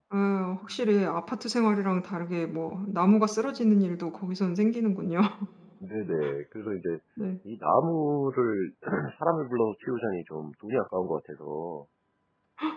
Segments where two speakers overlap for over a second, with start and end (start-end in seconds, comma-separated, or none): none